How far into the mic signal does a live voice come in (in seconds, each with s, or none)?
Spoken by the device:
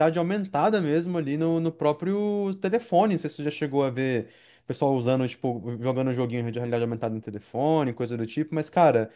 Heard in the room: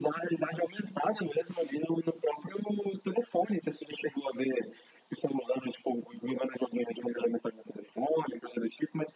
none